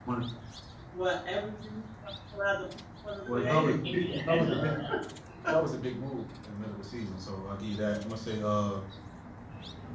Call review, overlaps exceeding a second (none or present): present